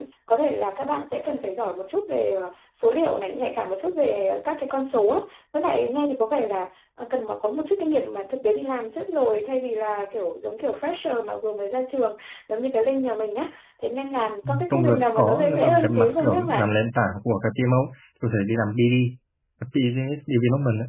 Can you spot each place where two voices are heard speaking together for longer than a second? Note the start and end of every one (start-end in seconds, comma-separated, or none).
14.7-16.7